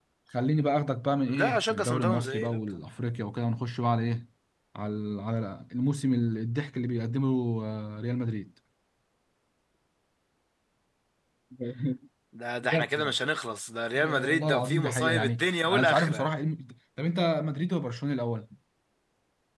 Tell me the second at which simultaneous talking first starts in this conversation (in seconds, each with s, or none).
1.4 s